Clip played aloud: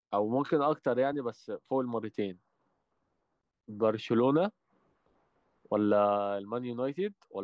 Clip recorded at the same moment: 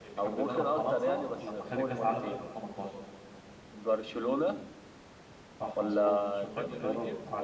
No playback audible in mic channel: No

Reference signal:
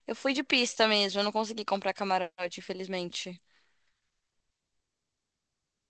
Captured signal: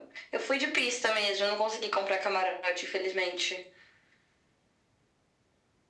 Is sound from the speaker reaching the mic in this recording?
Yes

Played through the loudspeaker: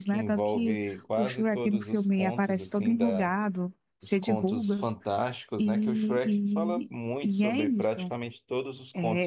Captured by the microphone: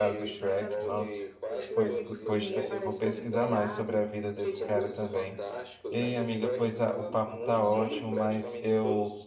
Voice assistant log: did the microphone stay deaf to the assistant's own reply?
No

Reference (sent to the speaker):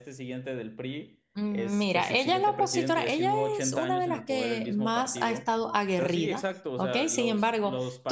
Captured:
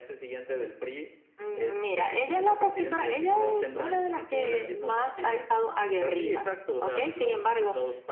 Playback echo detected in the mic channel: Yes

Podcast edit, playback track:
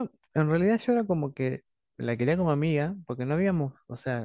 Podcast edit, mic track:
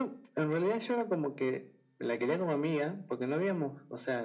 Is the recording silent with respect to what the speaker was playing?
No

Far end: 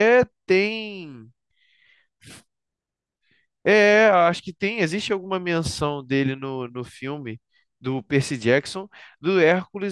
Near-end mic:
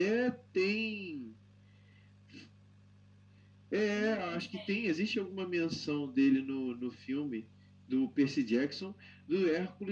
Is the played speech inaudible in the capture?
No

